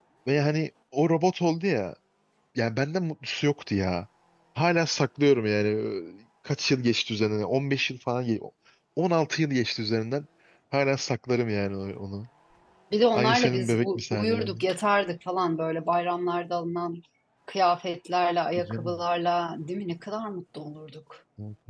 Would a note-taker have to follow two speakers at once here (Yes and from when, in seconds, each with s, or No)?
Yes, from 13.1 s